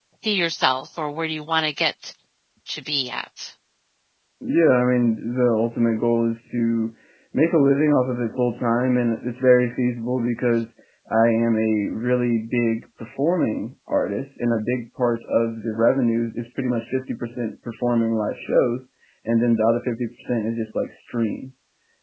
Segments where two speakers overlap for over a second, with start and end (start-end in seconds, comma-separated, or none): none